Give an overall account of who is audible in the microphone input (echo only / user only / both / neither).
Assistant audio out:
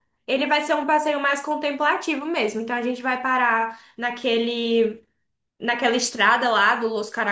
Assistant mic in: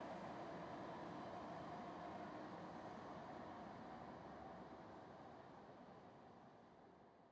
neither